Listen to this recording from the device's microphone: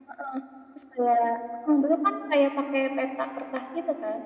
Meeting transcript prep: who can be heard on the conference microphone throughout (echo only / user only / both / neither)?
echo only